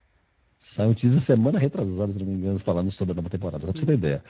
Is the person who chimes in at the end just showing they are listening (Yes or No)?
No